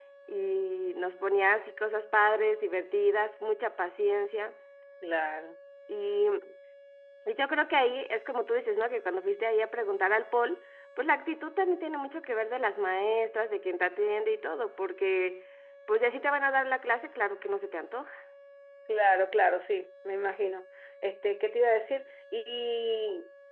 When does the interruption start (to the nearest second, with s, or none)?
none